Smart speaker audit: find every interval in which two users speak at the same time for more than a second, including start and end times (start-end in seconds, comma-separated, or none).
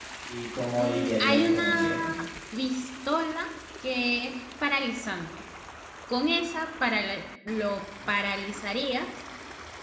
0.8-2.1